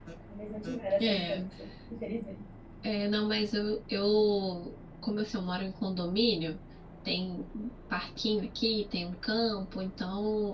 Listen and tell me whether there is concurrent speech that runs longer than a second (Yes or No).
No